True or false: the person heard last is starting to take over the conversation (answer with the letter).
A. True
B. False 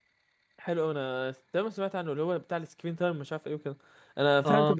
B